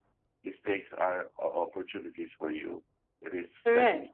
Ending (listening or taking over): listening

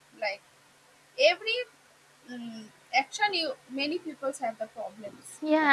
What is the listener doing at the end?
taking over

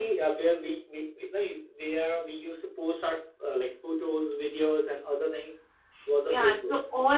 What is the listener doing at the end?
taking over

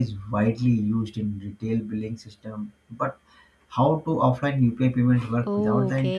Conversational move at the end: taking over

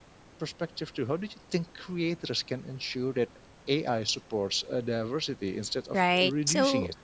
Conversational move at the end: taking over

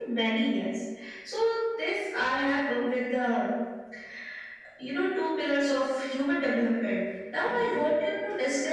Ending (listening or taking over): listening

